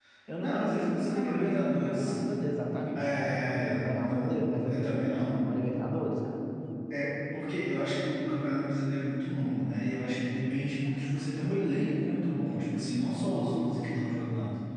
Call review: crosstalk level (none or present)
present